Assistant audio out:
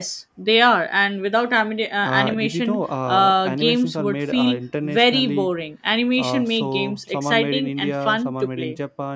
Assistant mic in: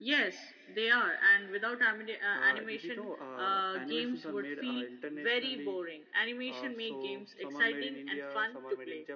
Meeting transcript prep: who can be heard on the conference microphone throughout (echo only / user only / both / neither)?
echo only